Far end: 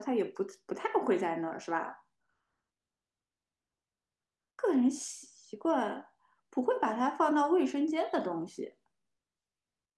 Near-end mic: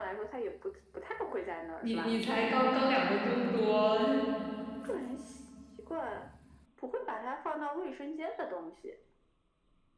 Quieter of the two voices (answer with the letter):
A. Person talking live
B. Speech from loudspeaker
B